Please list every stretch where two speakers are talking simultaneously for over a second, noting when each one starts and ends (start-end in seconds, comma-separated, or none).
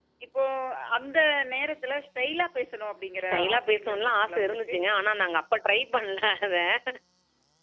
3.2-4.8